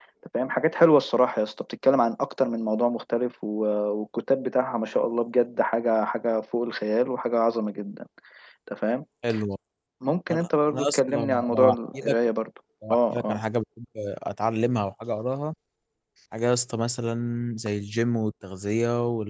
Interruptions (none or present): present